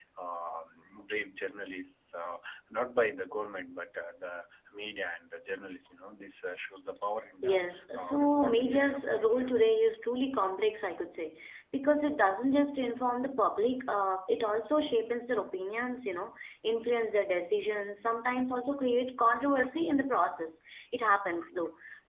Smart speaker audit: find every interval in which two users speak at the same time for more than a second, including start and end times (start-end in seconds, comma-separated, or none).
8.0-9.5